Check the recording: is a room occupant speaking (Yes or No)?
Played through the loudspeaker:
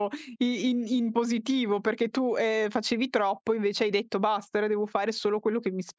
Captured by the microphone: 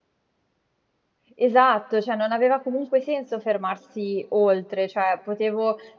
Yes